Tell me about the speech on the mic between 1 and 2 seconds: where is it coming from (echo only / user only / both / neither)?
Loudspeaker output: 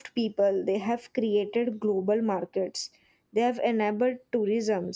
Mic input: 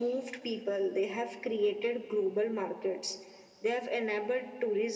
echo only